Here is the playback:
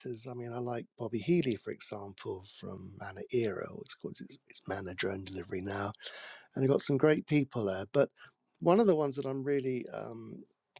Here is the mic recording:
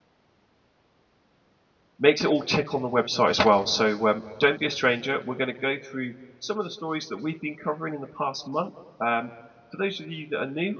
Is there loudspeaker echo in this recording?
No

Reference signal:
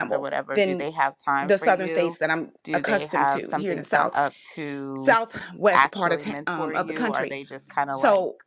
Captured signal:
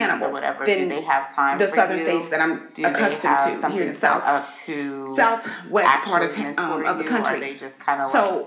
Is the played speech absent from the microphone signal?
No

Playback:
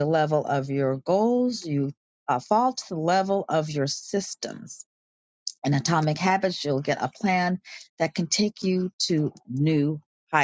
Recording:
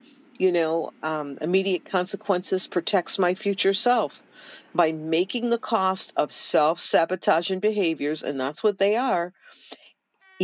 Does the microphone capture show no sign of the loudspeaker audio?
Yes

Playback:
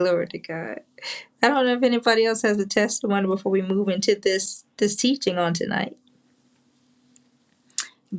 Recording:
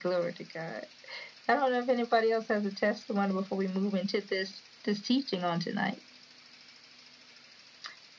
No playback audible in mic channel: No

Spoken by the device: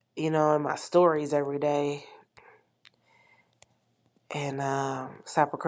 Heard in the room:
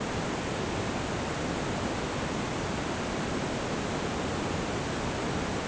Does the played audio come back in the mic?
No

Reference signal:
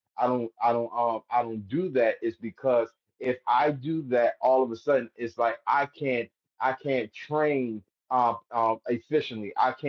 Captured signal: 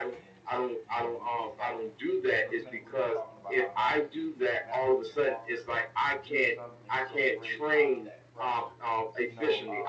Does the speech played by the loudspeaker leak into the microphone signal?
Yes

